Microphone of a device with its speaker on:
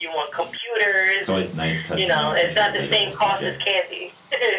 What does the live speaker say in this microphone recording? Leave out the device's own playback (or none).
It's always nice touching on such a relatable subject.